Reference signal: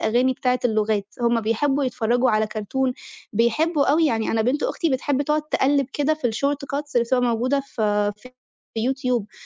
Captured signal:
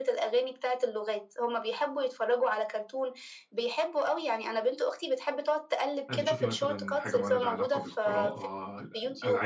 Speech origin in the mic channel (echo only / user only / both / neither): both